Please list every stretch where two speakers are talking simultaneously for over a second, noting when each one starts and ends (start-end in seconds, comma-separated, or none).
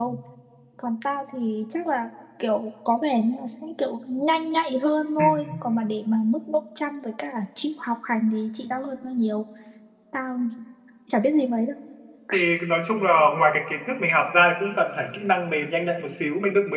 none